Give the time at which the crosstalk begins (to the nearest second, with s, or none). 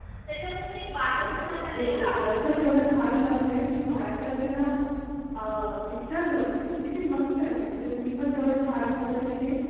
1 s